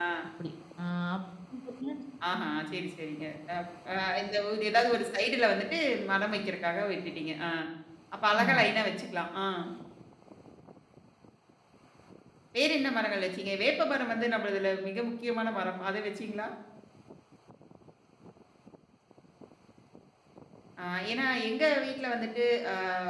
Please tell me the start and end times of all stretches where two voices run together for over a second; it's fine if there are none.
none

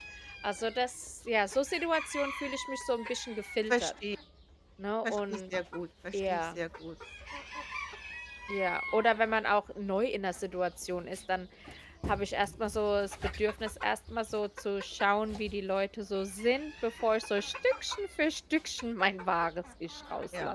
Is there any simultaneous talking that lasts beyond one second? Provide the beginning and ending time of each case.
none

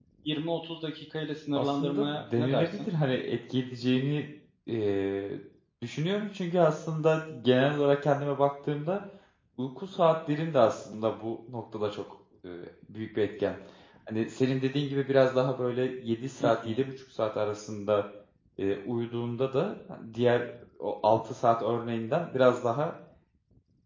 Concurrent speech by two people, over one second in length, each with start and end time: 1.6-2.9

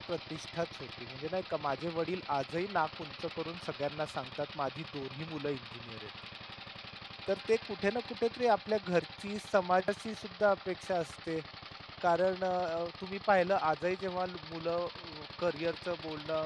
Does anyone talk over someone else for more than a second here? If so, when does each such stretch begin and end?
none

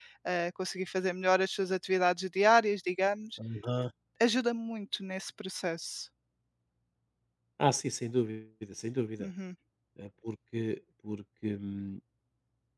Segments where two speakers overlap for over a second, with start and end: none

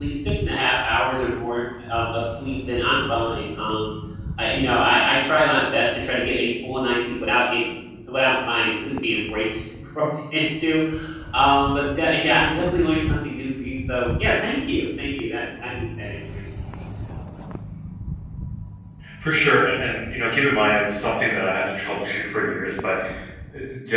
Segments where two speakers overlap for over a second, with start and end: none

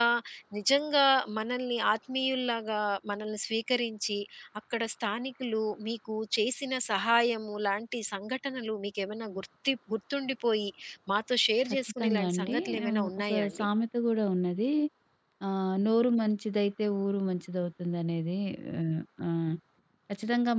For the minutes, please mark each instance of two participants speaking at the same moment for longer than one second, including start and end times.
11.8-13.6

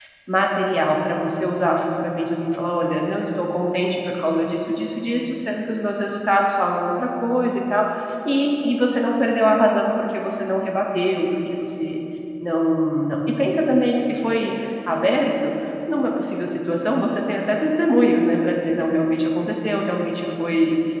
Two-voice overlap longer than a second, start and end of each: none

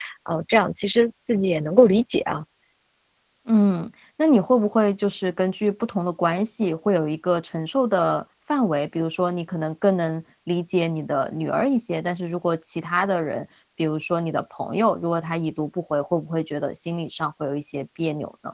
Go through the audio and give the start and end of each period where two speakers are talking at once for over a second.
none

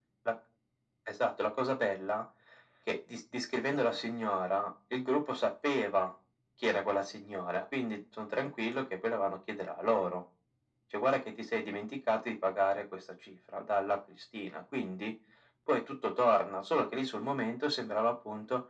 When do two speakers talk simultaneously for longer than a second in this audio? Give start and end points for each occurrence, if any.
none

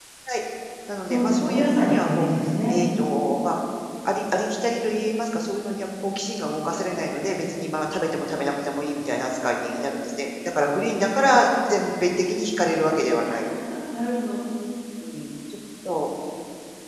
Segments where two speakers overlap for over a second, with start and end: 1.1-2.3

